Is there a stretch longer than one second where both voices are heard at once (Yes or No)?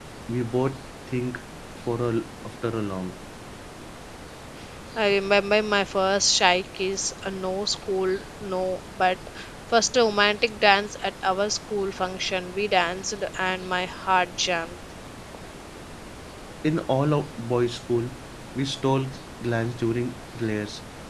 No